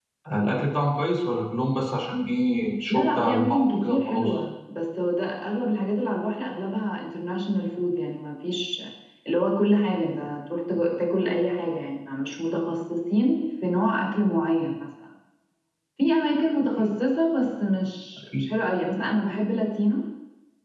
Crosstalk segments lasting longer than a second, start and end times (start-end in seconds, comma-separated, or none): 2.9-4.3